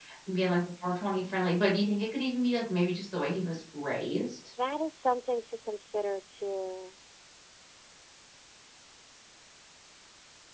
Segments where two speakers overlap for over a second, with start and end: none

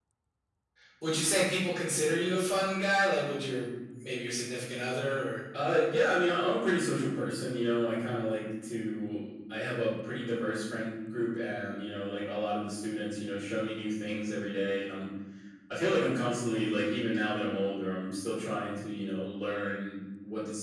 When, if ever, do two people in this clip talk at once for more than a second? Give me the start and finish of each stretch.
none

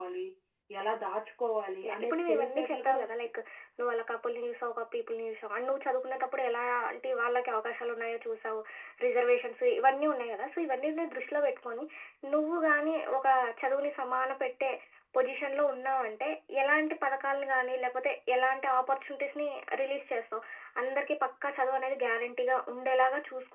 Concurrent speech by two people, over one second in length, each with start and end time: 1.9-3.1

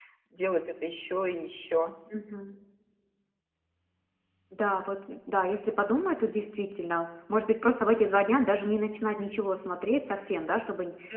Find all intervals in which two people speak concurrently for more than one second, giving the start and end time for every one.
none

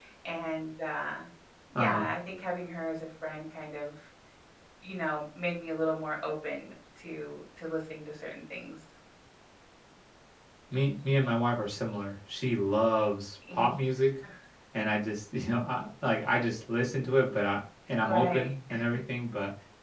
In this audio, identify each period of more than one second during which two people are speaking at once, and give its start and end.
none

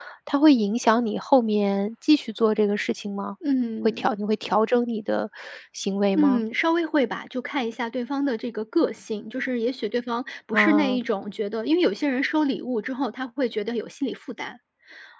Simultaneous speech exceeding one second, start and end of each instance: none

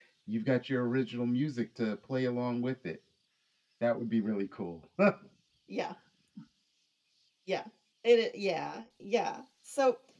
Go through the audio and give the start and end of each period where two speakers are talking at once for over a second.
none

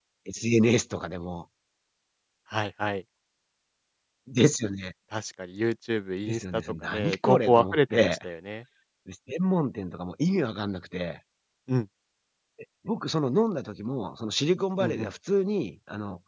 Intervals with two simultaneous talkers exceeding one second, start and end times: 6.3-8.2

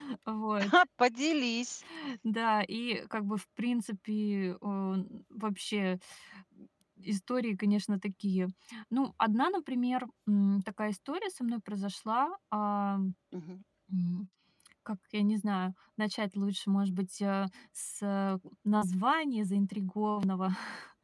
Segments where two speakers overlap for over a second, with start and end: none

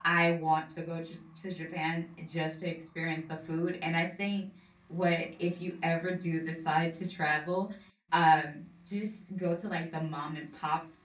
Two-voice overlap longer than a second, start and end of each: none

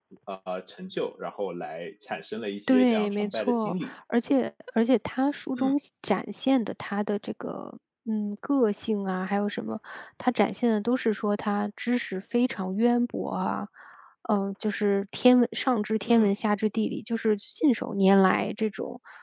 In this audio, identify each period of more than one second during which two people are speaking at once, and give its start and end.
2.7-3.9

